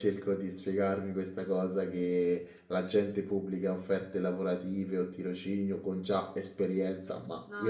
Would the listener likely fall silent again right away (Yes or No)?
Yes